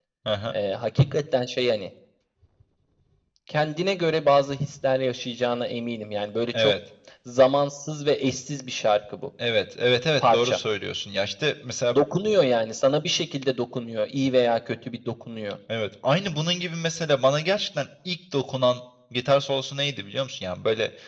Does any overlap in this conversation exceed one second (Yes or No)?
No